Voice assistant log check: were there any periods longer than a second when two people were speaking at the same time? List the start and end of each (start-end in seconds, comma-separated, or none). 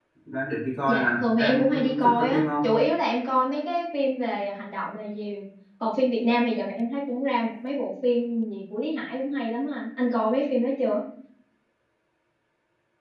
0.9-2.6